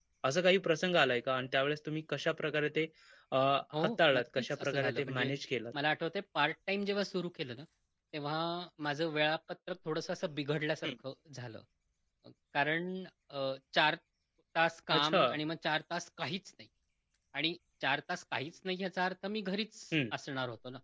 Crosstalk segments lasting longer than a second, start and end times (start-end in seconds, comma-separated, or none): 3.8-5.3